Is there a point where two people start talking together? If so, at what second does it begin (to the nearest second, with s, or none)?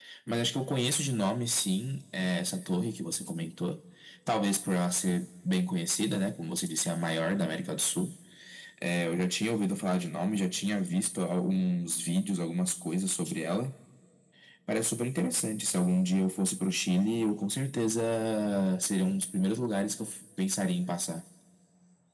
none